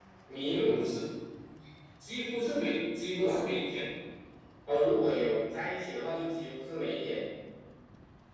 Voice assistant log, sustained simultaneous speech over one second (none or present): none